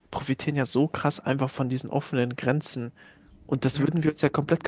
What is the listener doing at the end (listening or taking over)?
listening